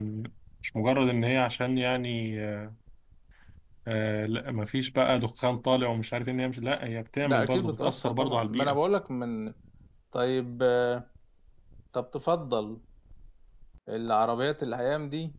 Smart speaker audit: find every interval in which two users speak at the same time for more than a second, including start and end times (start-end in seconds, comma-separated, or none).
7.2-8.8